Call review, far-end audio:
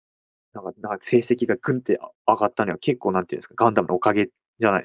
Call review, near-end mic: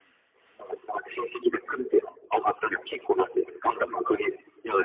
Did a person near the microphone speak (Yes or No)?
No